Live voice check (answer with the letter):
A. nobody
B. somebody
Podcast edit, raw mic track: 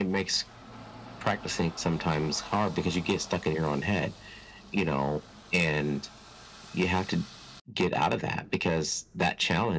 A